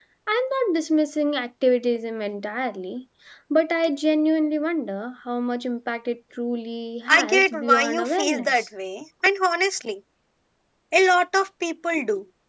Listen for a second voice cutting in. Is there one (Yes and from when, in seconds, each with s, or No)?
Yes, from 7.1 s